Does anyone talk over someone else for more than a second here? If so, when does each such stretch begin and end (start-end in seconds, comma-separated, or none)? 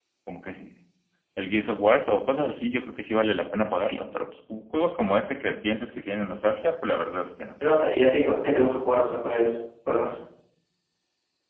none